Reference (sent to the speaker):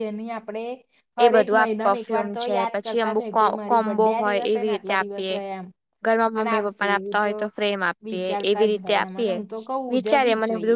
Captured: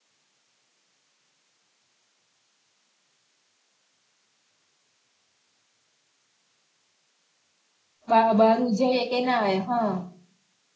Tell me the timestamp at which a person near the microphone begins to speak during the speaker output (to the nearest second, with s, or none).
8 s